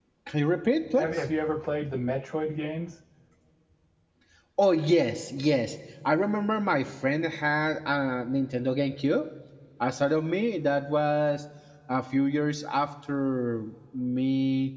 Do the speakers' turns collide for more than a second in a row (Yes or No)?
No